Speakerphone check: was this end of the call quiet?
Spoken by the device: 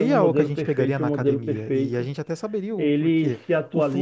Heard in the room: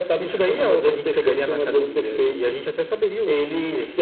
Yes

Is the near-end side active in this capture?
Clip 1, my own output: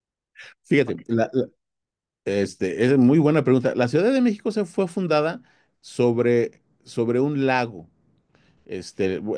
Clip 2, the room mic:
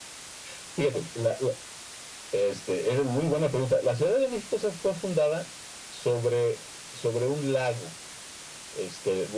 No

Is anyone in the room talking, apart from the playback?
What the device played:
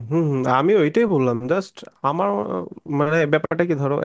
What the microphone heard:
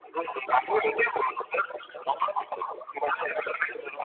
No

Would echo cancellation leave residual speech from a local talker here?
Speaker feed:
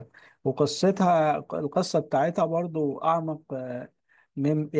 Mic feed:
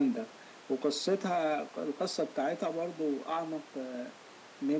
No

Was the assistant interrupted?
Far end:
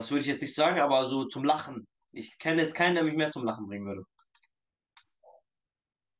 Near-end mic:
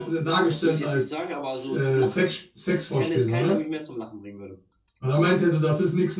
Yes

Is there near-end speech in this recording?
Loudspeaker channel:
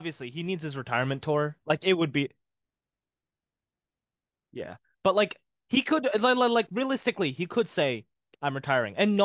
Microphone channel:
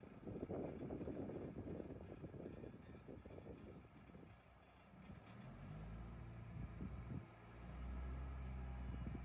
No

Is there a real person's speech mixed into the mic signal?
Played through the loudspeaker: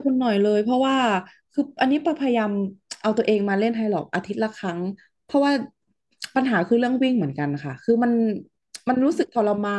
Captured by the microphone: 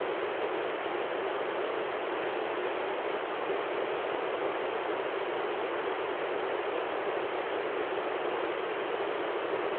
No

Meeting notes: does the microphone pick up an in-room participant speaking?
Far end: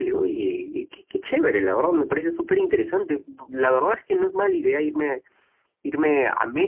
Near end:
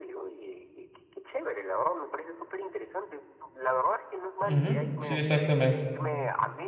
Yes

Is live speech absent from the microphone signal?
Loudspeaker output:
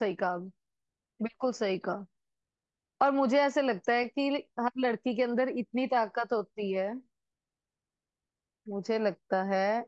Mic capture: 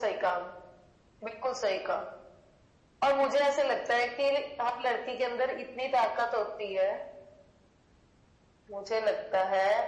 Yes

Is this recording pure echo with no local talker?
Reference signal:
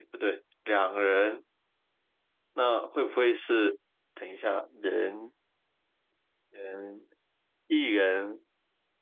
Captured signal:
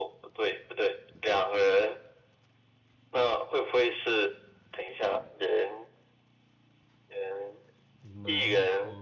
No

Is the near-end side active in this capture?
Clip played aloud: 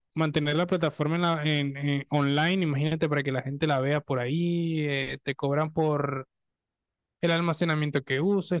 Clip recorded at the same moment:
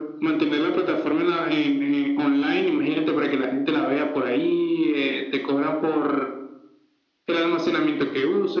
No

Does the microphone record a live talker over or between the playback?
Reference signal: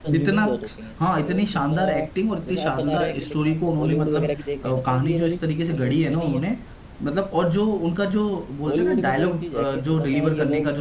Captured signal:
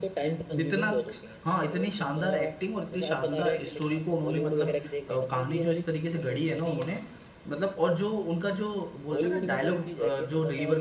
No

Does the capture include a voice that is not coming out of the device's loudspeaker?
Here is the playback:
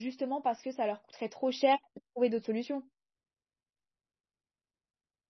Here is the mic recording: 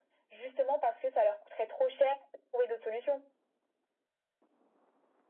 No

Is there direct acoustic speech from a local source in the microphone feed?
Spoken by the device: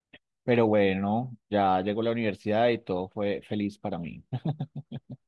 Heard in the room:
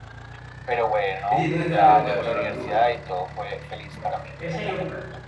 Yes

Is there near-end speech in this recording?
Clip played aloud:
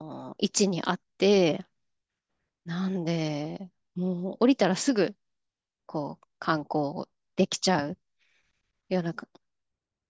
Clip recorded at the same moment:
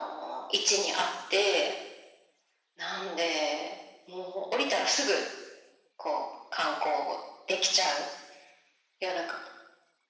No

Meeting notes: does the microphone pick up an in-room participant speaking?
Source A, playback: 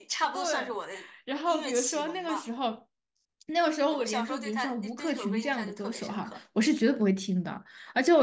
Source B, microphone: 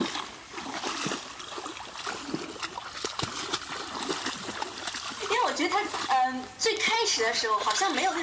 Yes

